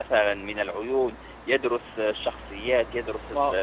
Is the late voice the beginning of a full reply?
Yes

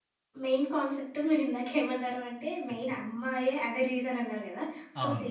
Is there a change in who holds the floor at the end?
No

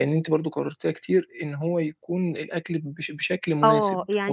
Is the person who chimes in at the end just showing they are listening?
No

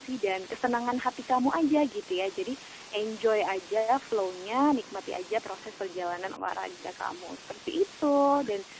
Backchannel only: Yes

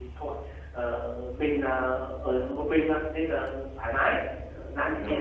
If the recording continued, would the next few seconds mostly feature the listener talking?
No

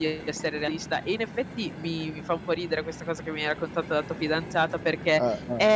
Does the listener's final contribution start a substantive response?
No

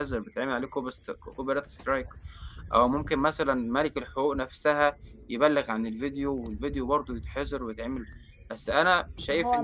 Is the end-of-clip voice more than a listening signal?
Yes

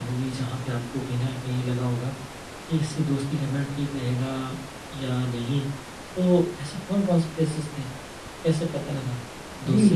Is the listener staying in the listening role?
No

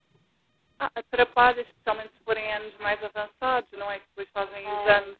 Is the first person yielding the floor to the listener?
No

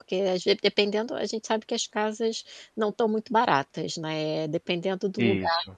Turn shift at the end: No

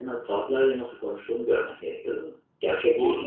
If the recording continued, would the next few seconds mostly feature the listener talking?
Yes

